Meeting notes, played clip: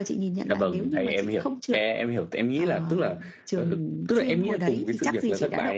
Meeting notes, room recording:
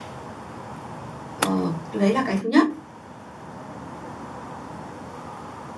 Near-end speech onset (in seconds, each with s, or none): 1.4 s